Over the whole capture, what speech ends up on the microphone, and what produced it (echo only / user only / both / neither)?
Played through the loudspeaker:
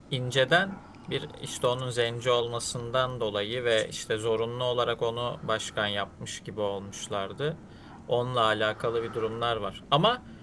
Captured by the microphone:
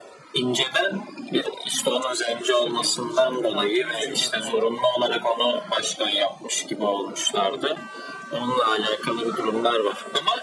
both